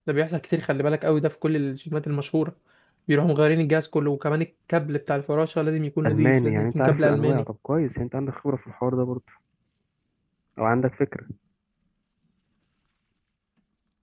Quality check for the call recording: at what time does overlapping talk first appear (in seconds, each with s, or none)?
6.0 s